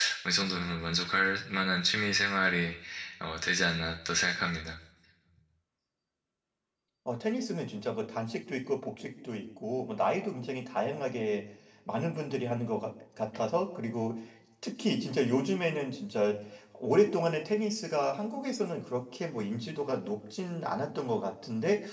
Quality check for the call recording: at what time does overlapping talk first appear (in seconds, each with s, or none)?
none